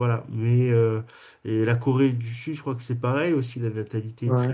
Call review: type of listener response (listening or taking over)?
listening